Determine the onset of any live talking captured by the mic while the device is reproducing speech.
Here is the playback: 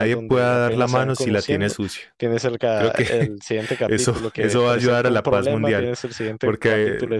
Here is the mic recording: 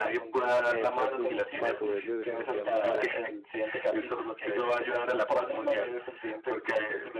0.7 s

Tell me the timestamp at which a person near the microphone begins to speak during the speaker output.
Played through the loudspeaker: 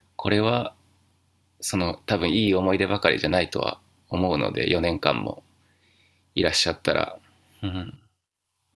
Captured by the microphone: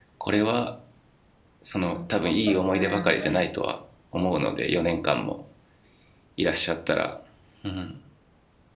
1.9 s

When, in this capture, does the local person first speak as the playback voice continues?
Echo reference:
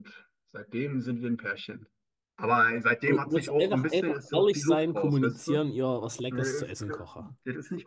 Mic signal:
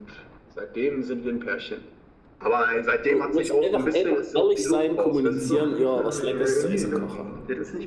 5.2 s

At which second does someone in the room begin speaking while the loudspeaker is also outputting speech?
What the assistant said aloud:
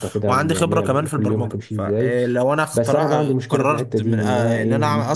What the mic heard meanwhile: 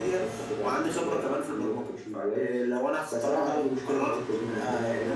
none

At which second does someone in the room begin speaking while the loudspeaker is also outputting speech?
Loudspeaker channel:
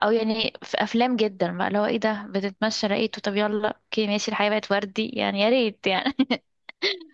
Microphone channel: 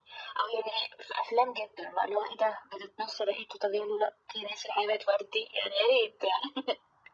none

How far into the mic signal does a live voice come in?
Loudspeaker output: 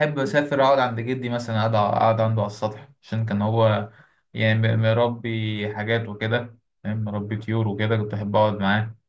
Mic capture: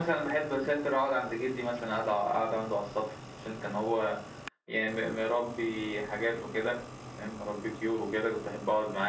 none

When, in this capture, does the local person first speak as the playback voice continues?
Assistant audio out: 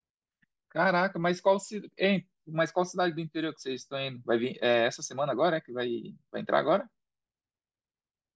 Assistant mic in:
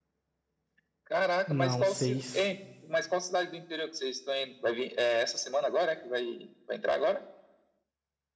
1.5 s

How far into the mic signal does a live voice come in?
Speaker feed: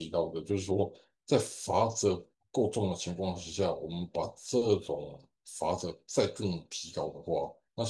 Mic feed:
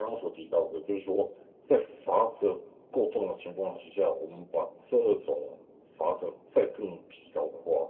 none

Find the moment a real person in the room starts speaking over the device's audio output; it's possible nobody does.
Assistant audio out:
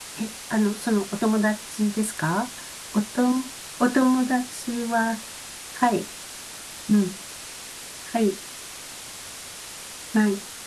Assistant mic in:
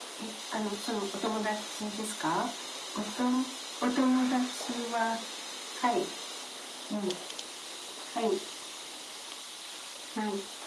none

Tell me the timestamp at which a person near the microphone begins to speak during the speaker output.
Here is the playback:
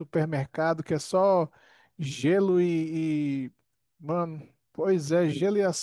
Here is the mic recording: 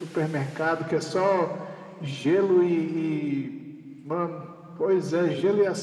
none

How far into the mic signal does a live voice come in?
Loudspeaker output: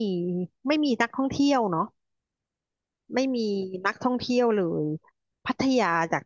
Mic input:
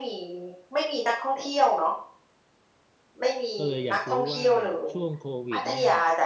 3.6 s

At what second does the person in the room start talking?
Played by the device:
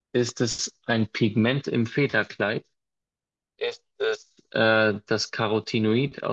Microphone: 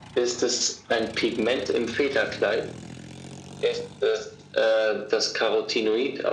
none

